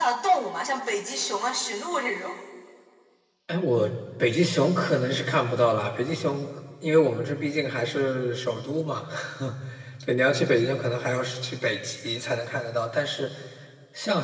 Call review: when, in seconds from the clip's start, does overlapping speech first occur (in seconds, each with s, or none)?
none